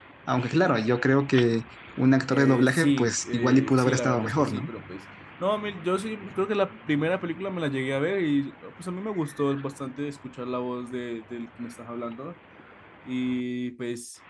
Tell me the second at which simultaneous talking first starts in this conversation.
2.3 s

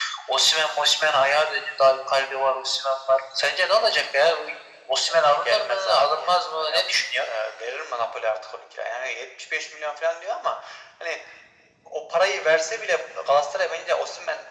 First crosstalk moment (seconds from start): 5.1 s

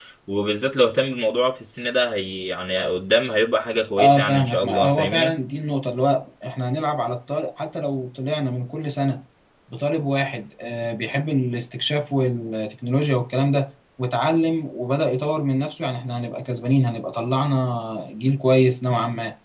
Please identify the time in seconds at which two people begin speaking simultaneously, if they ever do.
4.0 s

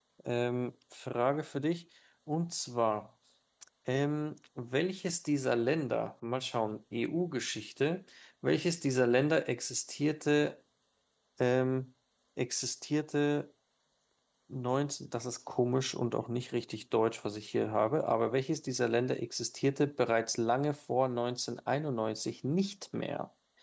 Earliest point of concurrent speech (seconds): none

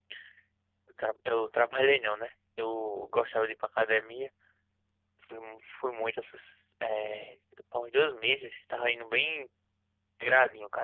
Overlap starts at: none

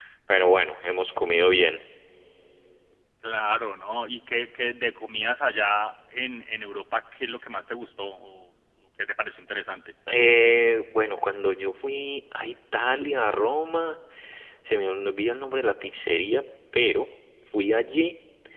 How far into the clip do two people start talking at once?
none

